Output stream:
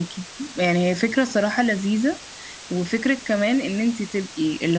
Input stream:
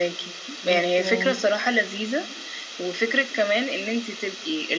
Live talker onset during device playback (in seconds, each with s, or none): 0.6 s